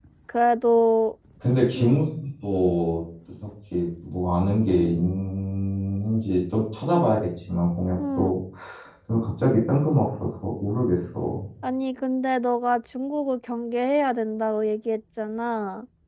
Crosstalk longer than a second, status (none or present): none